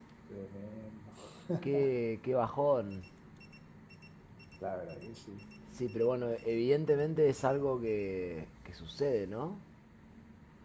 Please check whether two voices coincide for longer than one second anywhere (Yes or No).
No